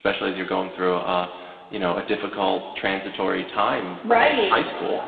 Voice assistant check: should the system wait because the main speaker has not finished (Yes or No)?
No